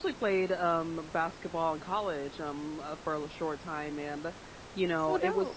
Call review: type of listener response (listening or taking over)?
listening